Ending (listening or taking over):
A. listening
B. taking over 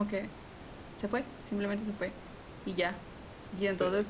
A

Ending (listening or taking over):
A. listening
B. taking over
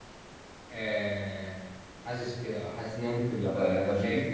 B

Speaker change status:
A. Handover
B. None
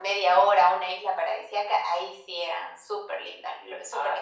A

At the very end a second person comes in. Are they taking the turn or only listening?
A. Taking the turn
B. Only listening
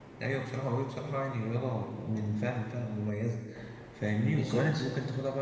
B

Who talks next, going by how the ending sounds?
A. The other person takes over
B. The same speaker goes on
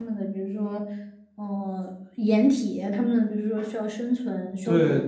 A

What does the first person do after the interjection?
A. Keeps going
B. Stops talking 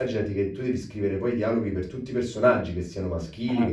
A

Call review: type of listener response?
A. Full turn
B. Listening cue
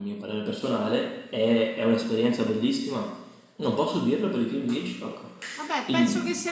A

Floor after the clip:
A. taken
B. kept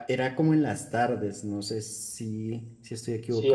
A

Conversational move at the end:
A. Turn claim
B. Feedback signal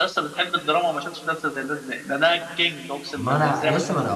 A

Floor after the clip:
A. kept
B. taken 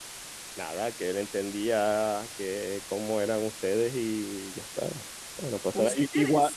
A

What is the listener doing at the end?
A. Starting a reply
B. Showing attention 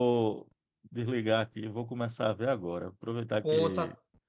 B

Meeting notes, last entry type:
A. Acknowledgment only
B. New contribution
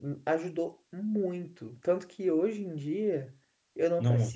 A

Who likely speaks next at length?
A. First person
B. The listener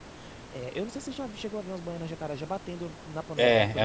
B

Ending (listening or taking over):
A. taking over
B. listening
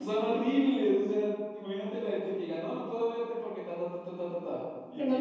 B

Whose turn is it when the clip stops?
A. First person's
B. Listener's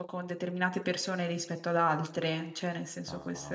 B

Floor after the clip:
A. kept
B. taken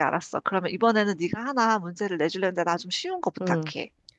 B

